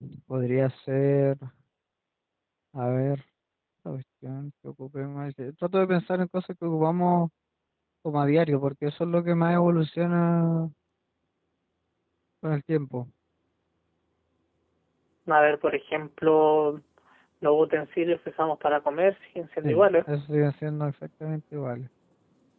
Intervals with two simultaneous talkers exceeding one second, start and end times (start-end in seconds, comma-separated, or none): none